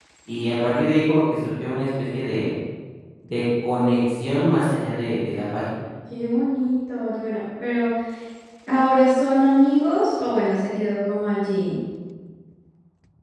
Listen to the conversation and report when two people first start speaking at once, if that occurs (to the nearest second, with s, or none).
none